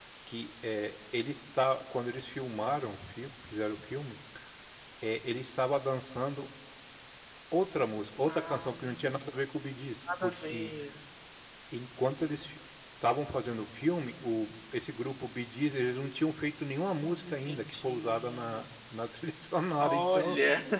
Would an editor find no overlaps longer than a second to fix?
No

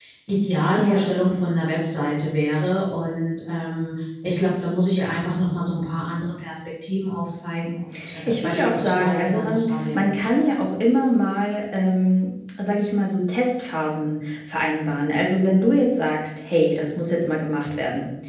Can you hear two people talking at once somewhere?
Yes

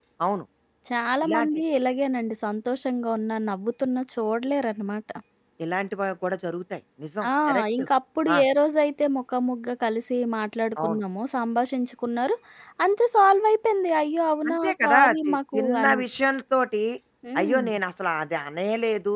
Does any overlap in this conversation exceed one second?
Yes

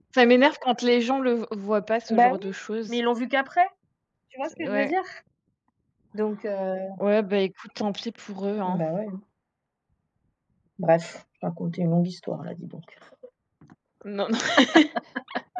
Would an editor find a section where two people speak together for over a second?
No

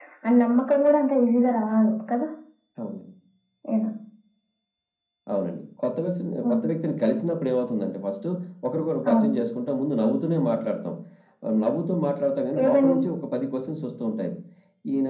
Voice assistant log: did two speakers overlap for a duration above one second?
No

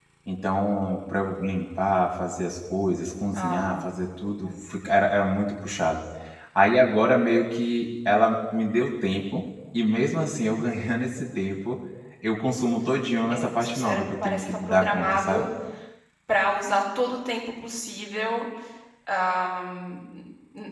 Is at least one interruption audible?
Yes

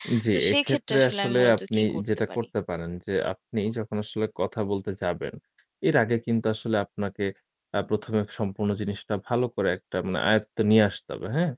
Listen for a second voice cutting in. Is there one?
Yes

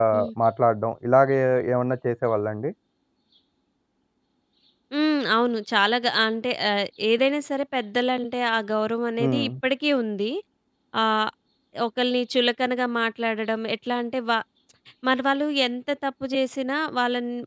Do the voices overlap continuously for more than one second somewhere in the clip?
No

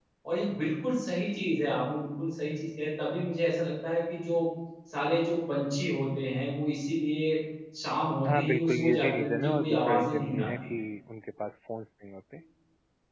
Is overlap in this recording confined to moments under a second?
No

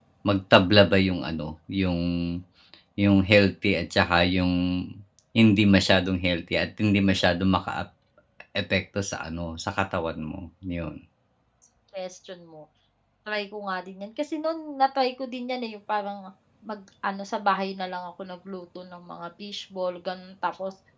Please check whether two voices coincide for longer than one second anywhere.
No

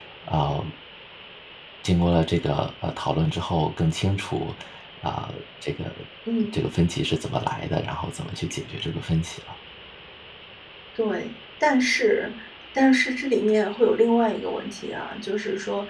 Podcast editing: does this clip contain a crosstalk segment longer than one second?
No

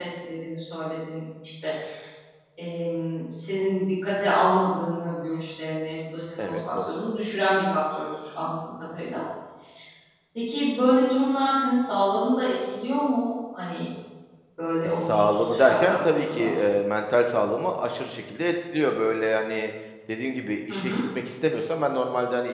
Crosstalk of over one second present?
Yes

